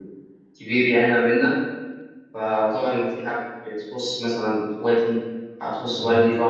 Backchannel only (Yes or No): Yes